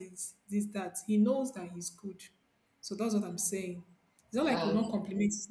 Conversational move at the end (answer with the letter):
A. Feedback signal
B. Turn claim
A